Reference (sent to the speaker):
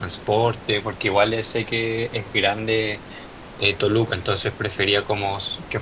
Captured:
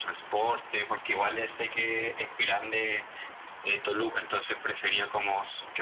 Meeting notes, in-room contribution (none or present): none